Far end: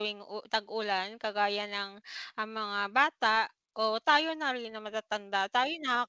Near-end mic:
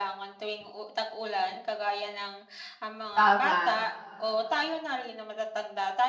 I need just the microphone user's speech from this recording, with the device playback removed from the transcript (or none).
Tama.